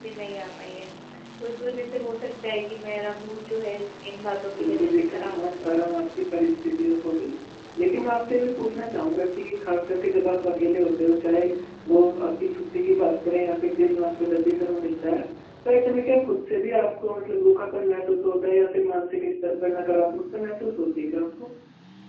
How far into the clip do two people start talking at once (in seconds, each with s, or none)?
4.5 s